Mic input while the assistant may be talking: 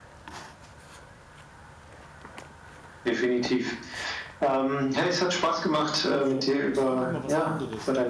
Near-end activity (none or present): present